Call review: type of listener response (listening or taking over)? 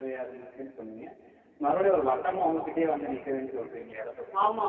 taking over